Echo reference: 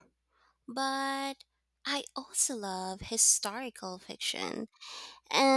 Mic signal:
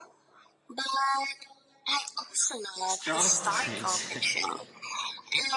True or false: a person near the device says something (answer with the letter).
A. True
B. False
A